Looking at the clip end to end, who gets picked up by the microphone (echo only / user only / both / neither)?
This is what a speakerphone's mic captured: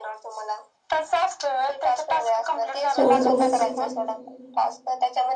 both